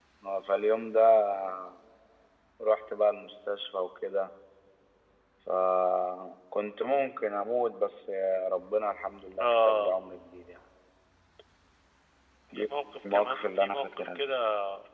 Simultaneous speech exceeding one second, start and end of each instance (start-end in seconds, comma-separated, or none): 13.1-14.3